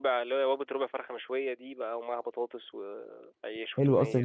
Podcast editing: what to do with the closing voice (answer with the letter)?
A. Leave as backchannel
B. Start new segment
B